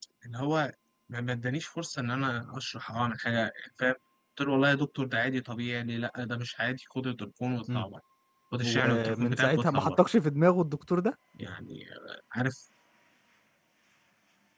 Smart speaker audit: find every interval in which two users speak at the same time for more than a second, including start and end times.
8.6-10.0

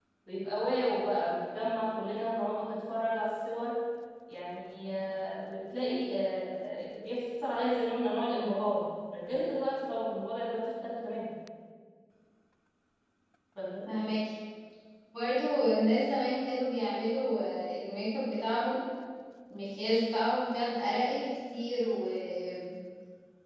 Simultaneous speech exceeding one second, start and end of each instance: none

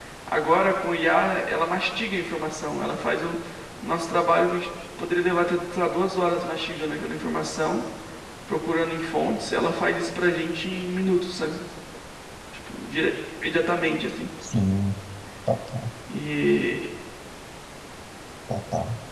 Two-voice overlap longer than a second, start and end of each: none

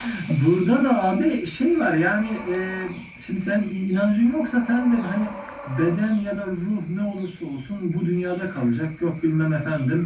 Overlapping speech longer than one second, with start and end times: none

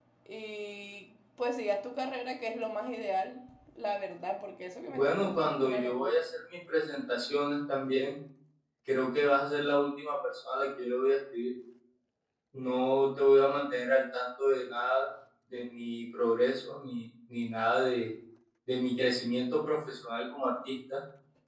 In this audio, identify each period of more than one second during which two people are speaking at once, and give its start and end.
4.9-6.1

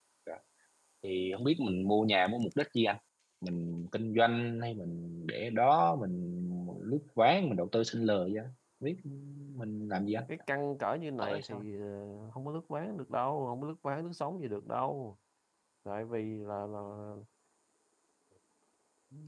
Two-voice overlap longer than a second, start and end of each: none

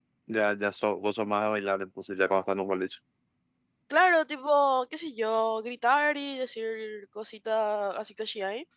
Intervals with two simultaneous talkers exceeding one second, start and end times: none

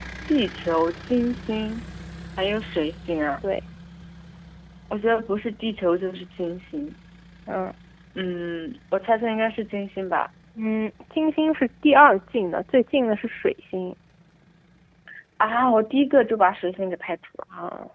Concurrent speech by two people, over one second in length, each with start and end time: none

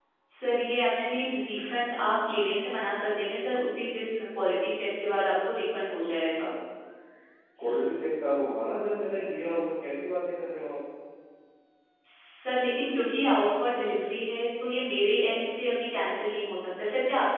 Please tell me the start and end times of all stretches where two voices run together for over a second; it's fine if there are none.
none

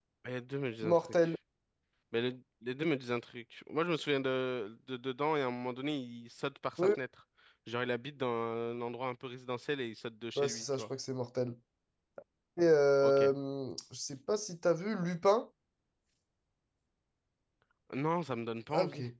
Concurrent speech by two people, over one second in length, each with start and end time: none

